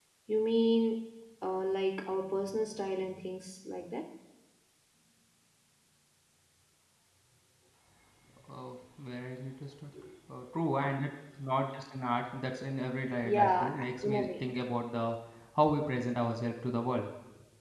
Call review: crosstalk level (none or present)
present